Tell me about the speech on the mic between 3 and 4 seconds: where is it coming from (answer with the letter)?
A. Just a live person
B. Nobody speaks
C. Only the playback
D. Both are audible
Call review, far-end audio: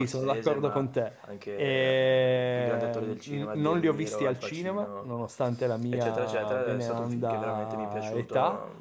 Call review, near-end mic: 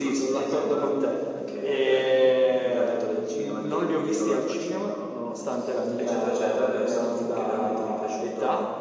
C